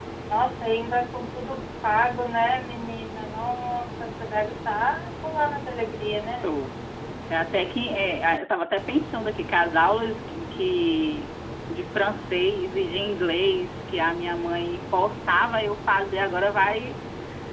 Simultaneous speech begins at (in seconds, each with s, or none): none